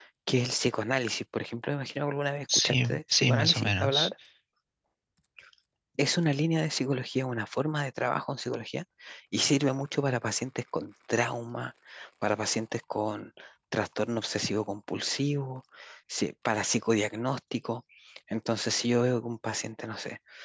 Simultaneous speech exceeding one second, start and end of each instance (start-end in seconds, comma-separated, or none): 2.5-4.1